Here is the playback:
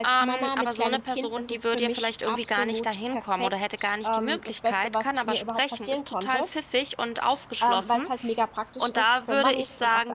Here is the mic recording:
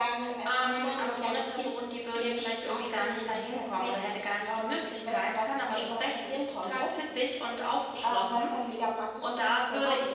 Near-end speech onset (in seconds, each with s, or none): none